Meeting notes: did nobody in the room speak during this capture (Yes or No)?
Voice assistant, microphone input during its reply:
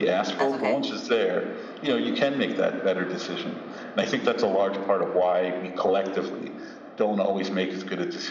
No